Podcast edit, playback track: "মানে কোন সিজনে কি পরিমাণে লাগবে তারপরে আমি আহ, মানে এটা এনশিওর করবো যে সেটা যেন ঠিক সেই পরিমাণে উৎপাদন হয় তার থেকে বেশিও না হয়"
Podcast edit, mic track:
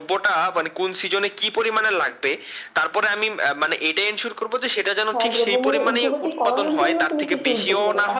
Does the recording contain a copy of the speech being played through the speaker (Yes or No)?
Yes